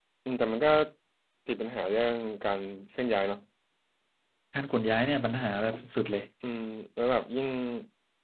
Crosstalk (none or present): none